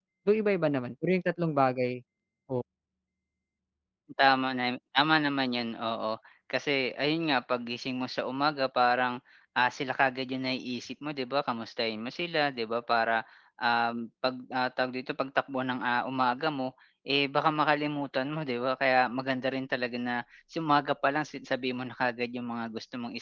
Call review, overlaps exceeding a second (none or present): none